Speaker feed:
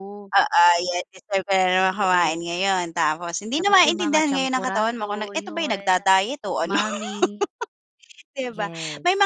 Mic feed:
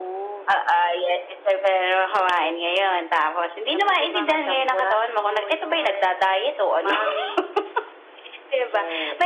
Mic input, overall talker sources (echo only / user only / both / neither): echo only